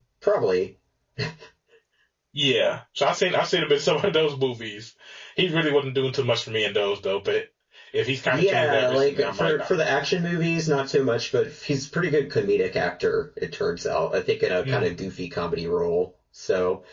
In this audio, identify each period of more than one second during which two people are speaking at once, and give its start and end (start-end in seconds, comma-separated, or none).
8.2-9.7